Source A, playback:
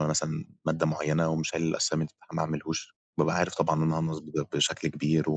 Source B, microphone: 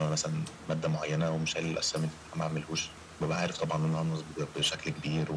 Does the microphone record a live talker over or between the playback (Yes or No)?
No